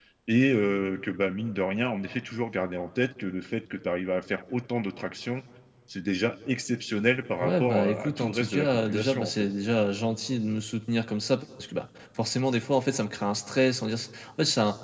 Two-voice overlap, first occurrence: 7 s

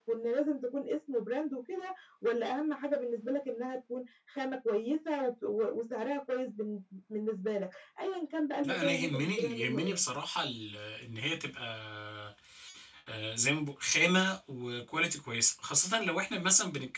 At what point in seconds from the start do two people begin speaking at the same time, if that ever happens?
9 s

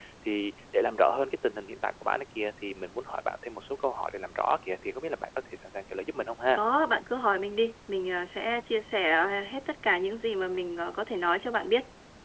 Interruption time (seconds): none

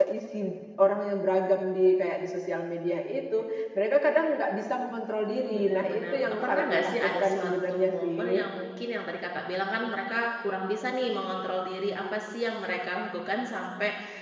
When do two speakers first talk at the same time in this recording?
5 s

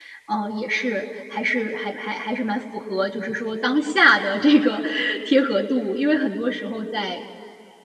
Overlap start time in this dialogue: none

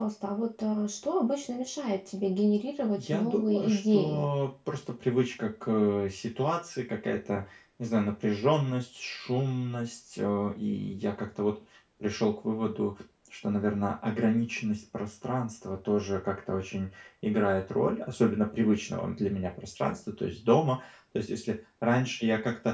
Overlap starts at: 3 s

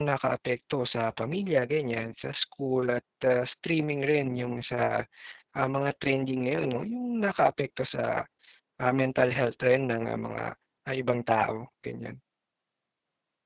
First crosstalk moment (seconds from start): none

